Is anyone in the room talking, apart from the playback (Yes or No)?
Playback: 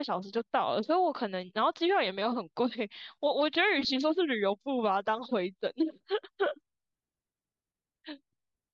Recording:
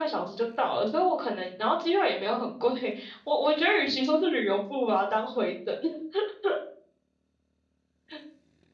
No